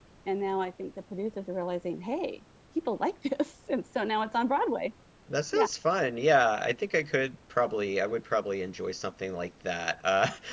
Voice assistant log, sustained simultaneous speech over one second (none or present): none